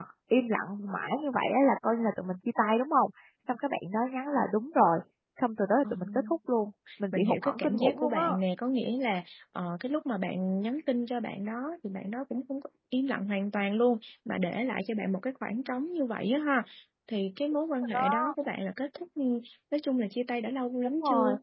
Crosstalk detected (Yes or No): Yes